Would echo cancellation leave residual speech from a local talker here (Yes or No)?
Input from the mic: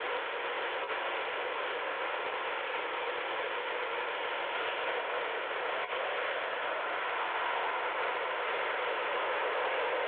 No